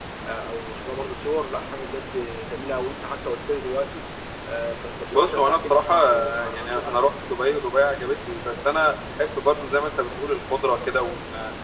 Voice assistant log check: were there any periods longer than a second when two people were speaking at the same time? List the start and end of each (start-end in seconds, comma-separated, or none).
5.1-7.1